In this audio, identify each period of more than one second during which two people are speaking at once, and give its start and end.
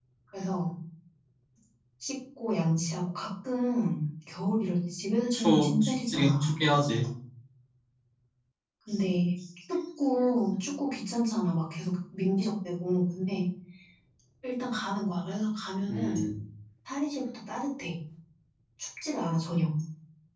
5.3-6.6

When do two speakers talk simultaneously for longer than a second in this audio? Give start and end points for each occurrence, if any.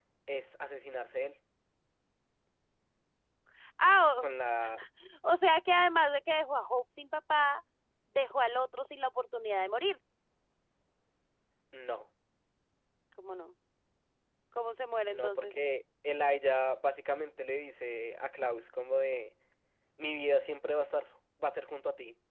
none

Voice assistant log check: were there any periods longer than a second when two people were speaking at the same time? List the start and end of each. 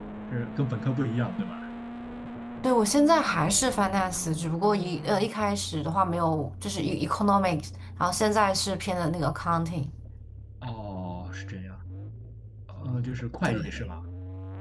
none

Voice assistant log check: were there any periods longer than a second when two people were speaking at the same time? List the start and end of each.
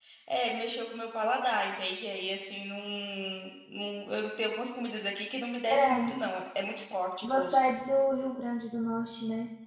none

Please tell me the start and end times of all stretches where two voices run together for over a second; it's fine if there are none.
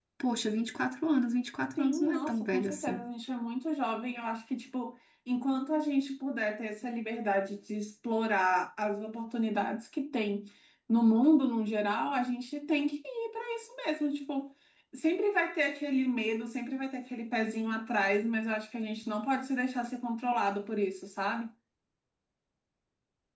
1.8-3.1

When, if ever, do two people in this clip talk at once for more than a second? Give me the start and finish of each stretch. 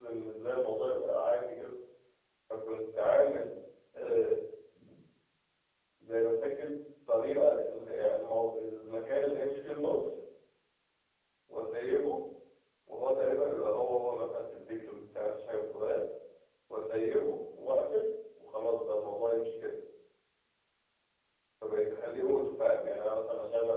none

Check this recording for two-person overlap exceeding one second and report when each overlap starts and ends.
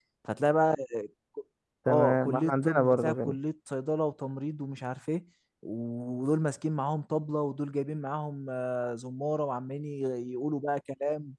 1.9-3.4

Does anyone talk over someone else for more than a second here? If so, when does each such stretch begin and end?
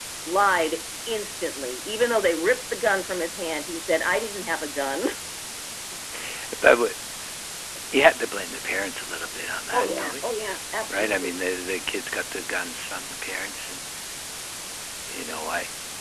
none

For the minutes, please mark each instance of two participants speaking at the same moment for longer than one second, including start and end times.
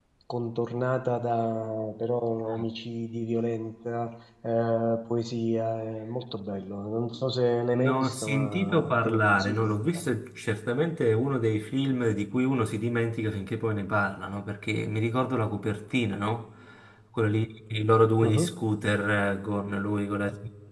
7.8-9.8

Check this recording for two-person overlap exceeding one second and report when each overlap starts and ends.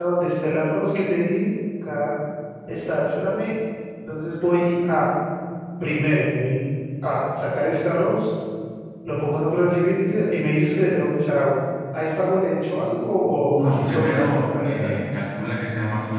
13.6-14.9

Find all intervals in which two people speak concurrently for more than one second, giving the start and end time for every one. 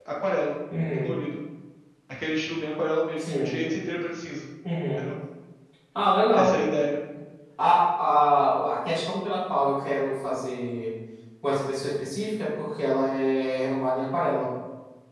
none

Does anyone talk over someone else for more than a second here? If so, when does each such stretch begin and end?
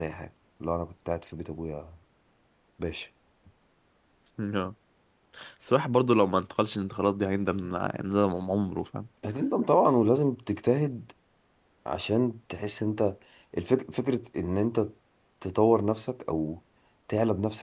none

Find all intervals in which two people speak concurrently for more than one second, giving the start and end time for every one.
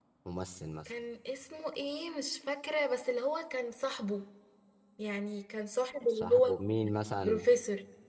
none

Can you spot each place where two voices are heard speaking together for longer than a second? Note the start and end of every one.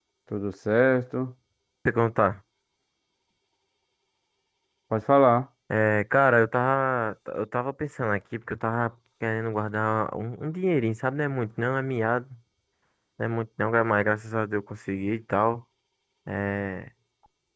none

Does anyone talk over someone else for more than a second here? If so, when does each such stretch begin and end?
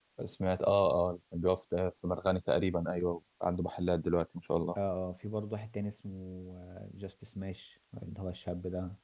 none

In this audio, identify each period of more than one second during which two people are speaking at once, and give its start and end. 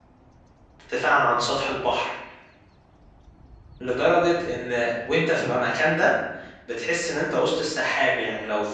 none

